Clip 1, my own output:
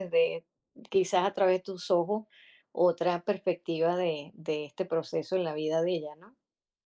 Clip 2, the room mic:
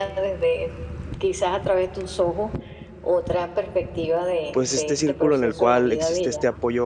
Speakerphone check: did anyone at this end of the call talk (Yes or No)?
Yes